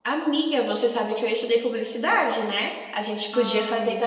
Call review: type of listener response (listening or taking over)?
listening